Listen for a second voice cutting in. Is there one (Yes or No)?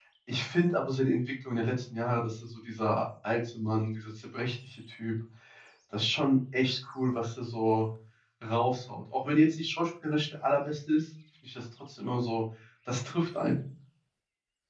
No